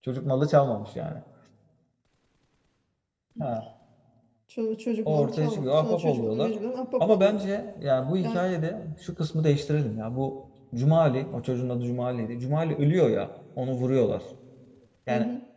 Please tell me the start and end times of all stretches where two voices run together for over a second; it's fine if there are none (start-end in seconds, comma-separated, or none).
5.1-6.5